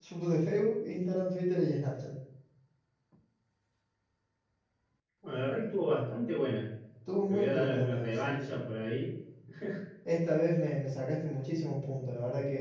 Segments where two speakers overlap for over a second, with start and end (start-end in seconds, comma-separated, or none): 7.3-8.7